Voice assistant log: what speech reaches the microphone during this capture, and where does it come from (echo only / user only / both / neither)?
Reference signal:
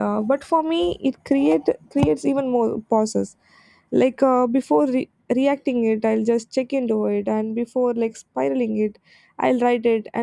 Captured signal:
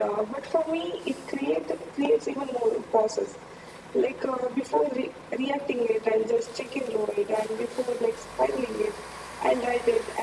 echo only